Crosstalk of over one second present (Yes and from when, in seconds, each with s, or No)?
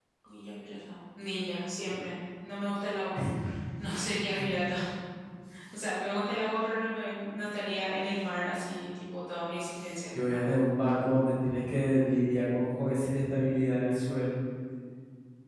No